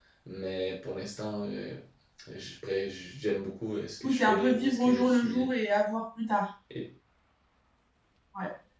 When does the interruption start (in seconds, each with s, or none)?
4.0 s